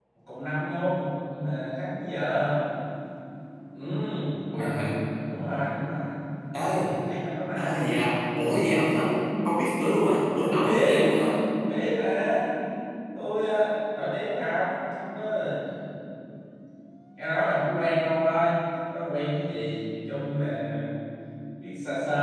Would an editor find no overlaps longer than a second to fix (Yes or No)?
Yes